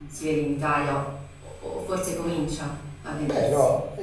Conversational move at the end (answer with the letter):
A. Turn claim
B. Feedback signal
A